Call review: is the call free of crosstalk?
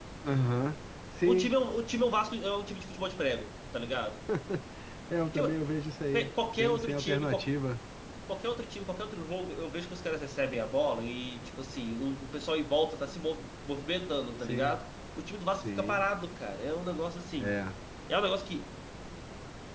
No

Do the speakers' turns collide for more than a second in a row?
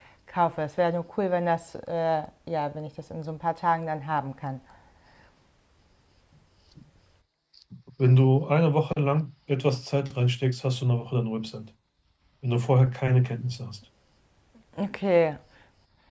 No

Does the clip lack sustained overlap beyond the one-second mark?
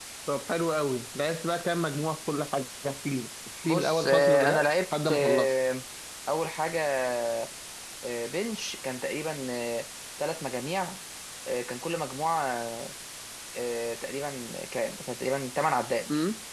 No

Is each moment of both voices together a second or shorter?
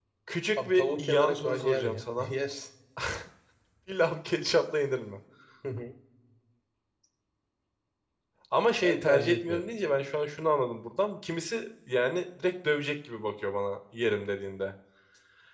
No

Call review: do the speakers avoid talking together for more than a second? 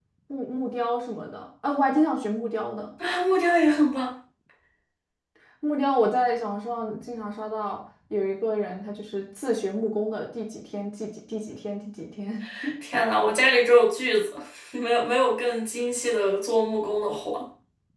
Yes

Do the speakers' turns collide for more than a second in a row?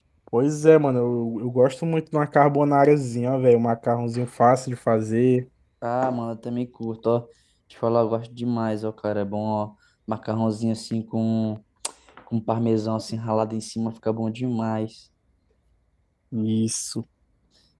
No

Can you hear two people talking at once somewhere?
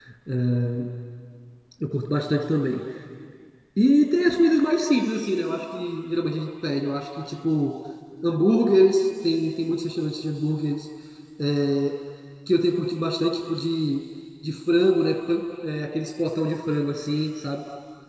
No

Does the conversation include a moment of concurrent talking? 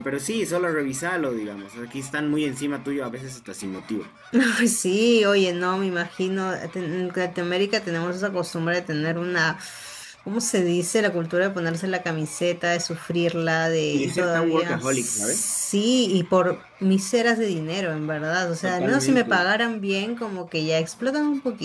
Yes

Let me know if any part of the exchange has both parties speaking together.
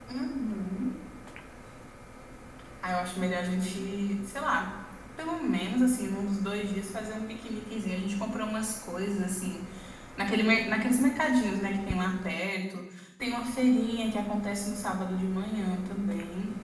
No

